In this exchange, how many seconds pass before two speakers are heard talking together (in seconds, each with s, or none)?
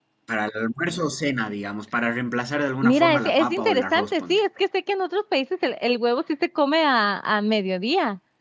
2.8 s